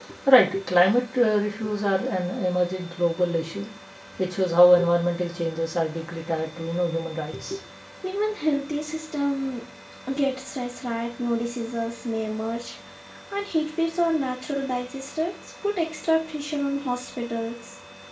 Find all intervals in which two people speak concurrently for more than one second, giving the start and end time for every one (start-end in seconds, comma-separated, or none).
none